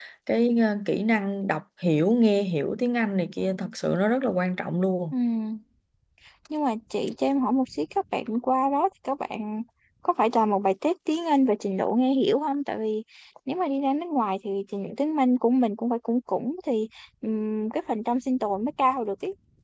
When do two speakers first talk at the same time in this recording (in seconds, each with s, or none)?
none